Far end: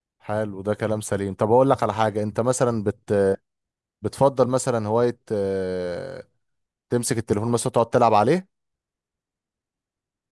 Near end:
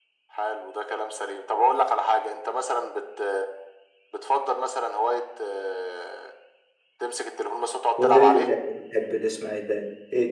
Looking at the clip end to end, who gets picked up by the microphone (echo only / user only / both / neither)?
both